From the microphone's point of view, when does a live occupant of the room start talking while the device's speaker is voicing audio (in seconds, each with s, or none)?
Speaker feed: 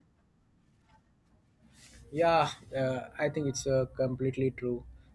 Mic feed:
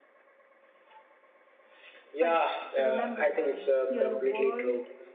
2.2 s